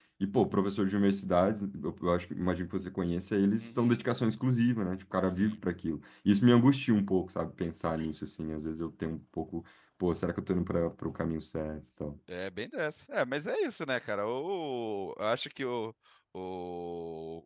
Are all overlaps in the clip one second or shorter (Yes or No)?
Yes